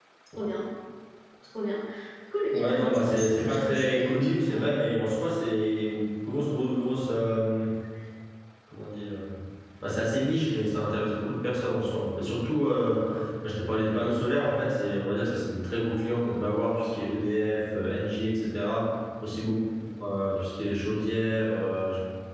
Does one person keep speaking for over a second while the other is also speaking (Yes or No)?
Yes